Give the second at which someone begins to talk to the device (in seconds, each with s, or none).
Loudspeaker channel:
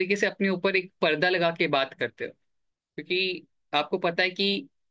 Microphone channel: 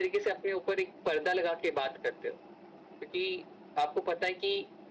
none